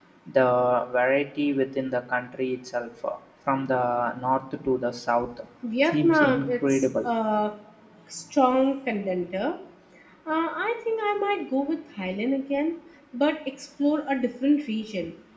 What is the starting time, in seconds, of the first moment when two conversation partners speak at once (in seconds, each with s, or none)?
5.9 s